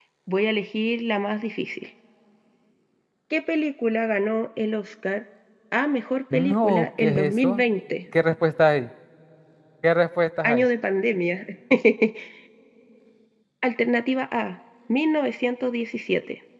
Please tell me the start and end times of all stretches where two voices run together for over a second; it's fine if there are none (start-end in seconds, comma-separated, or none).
6.3-7.6